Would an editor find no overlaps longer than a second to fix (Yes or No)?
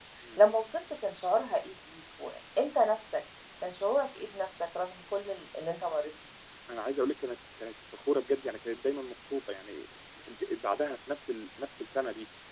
Yes